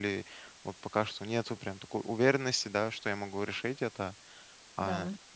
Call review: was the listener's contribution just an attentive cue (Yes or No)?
Yes